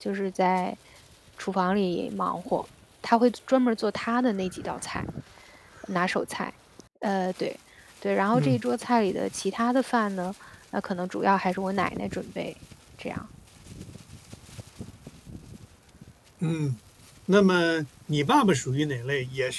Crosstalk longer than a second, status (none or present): none